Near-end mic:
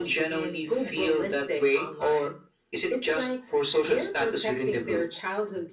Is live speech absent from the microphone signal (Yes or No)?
Yes